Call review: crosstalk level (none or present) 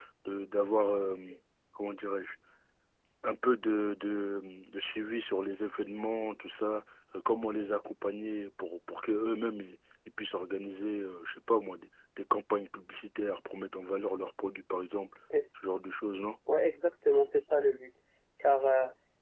none